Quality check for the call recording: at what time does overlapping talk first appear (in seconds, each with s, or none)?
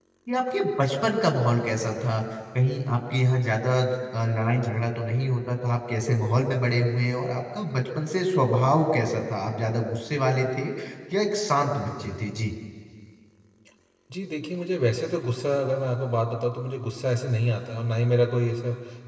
none